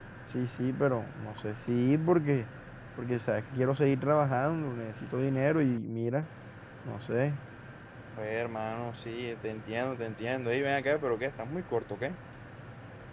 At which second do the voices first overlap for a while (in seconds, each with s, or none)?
none